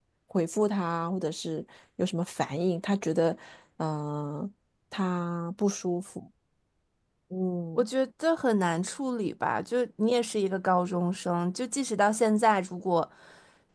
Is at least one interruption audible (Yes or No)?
No